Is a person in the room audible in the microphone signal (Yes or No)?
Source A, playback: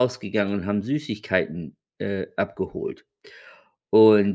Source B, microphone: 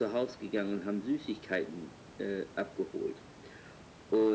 No